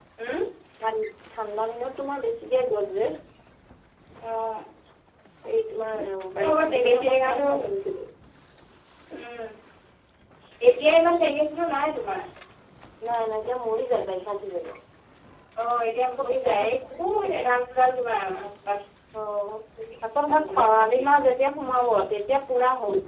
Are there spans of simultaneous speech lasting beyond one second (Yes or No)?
Yes